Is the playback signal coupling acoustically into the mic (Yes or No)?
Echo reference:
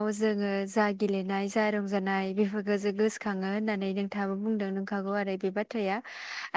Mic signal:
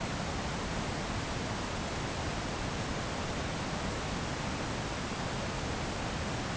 No